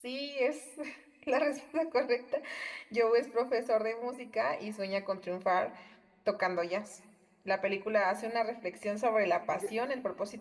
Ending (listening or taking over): listening